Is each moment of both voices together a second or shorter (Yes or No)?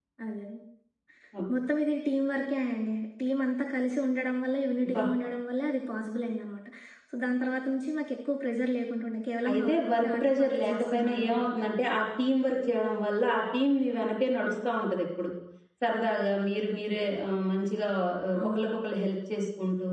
No